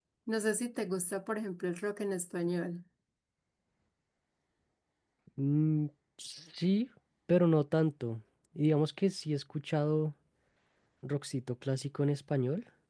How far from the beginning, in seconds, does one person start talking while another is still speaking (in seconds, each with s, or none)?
none